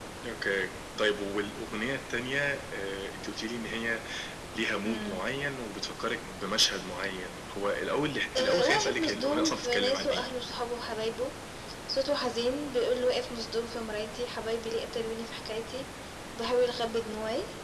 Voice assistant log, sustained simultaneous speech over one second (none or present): present